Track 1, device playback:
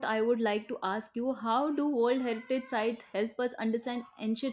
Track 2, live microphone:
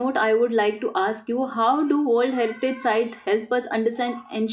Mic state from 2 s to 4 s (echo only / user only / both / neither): echo only